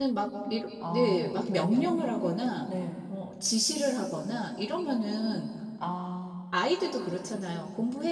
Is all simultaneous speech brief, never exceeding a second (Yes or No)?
Yes